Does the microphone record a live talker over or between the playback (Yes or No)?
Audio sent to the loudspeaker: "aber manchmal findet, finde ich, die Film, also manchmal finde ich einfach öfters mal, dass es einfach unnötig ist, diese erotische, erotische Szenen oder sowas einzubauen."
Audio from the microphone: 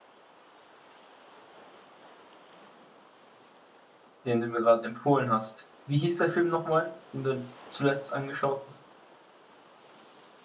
Yes